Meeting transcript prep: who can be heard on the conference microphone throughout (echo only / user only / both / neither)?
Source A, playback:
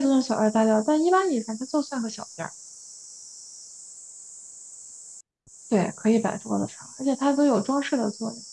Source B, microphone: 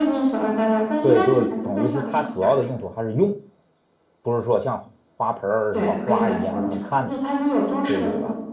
both